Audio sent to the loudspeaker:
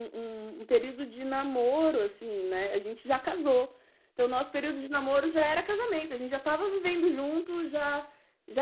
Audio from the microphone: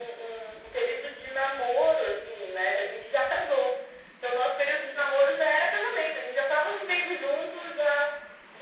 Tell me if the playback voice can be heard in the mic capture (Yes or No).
Yes